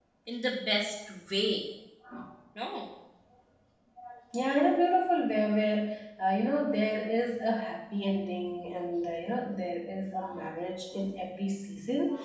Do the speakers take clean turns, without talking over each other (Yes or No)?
Yes